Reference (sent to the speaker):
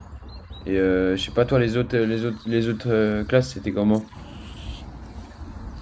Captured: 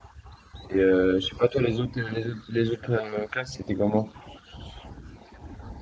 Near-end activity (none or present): none